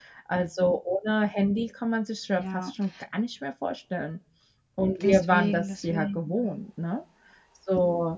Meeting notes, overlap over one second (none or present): present